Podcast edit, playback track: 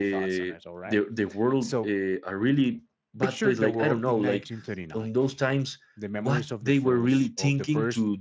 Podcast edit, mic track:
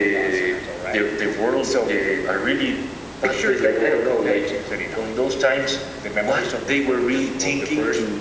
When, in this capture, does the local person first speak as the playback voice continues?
none

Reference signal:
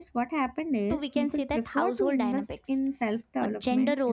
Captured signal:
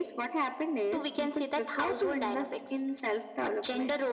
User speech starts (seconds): none

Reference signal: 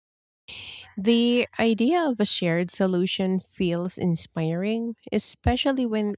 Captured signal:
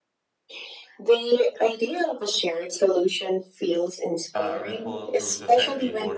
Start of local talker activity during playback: 4 s

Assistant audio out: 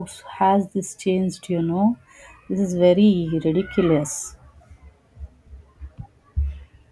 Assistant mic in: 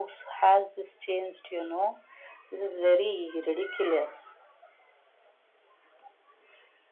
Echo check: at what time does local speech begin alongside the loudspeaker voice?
none

